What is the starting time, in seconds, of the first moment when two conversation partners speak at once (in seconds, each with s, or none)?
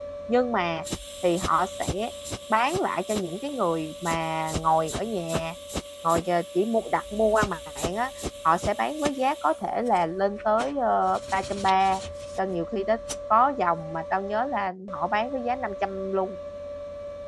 none